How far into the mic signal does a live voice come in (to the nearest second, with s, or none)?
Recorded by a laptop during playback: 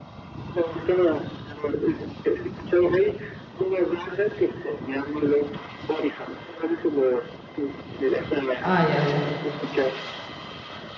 9 s